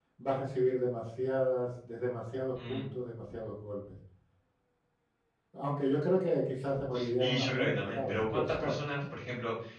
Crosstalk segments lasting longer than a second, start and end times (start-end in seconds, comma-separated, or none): 7.2-8.7